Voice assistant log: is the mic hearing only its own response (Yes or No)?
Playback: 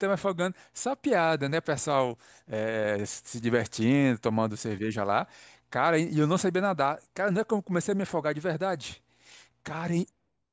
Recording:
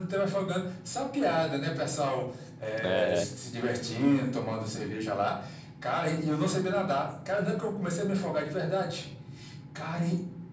No